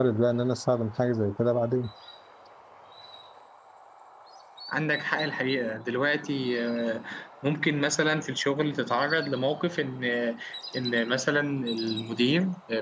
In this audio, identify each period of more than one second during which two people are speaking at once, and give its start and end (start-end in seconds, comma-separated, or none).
none